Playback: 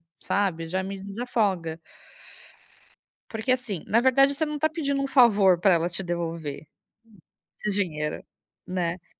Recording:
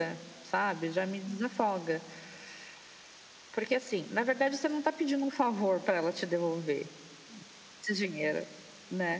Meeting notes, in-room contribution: none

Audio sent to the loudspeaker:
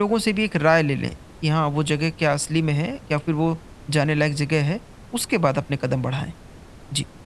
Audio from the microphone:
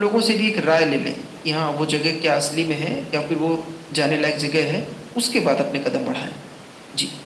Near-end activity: none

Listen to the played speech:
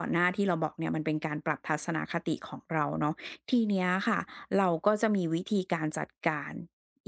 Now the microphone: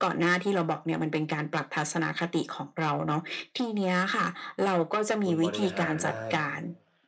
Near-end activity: present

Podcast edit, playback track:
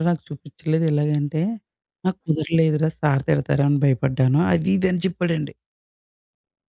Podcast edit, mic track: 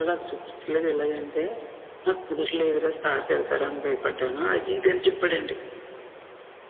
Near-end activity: none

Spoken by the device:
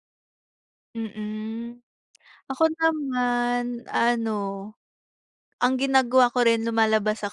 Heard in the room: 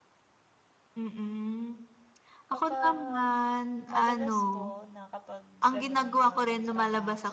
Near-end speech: present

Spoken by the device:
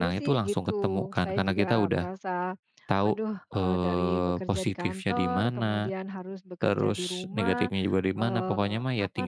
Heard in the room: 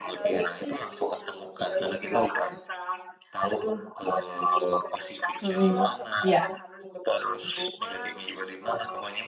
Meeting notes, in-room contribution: present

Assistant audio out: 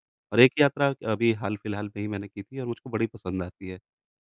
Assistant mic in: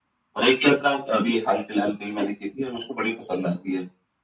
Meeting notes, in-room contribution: none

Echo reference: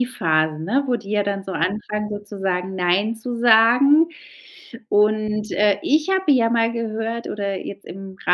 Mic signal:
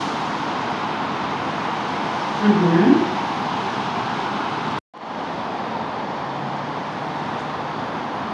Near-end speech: present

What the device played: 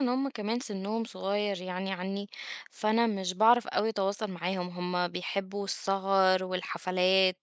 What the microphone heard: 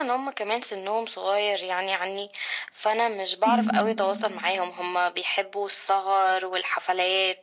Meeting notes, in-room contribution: present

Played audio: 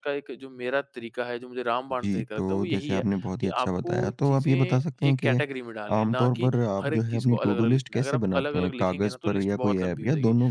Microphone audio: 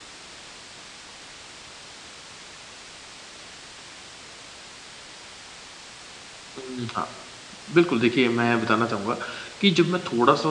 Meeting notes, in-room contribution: present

